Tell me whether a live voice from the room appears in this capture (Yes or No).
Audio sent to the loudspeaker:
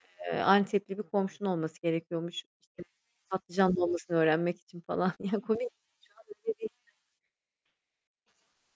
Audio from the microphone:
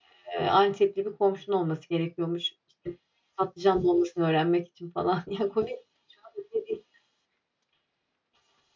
No